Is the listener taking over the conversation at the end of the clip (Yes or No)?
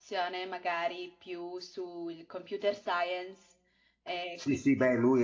Yes